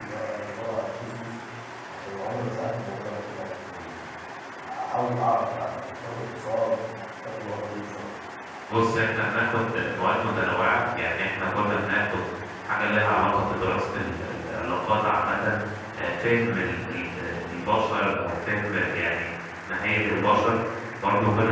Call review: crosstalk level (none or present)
none